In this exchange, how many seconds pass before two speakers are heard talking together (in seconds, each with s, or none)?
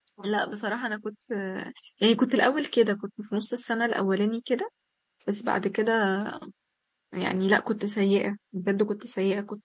none